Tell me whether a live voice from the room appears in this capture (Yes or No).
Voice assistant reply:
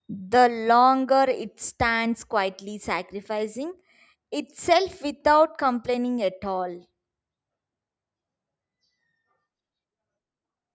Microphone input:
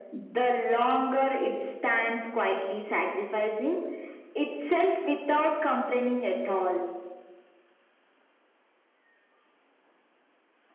No